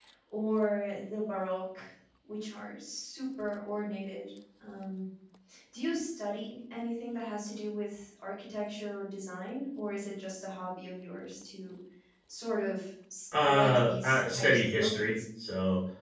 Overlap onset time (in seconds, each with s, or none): 13.3 s